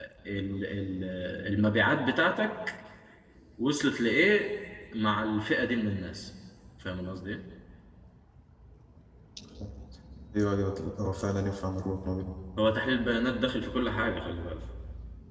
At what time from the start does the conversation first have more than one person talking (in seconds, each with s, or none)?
none